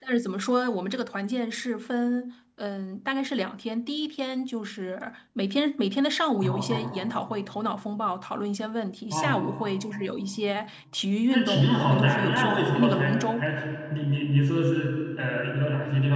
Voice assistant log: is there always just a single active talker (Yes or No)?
No